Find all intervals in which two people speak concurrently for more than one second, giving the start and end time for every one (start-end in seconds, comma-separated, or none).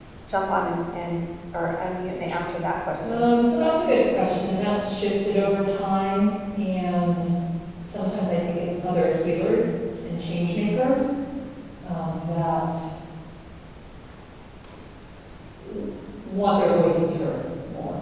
none